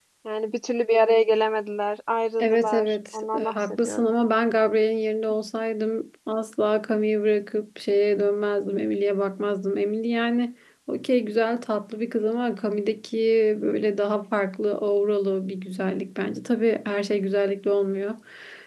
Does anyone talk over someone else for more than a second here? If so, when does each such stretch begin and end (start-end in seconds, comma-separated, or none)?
2.4-4.1